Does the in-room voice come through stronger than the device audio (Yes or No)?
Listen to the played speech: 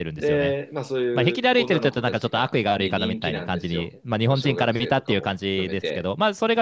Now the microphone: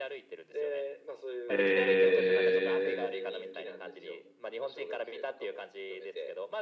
Yes